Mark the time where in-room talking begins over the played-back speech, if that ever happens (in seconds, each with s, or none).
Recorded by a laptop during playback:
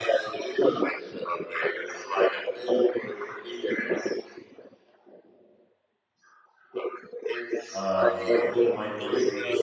7.7 s